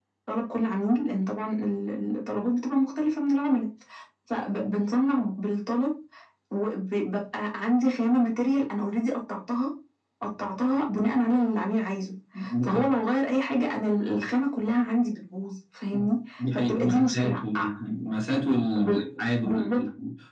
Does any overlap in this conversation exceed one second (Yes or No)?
Yes